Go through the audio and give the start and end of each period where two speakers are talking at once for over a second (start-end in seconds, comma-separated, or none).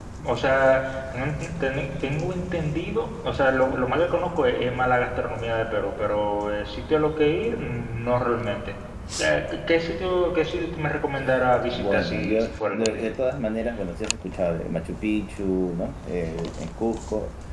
11.7-13.1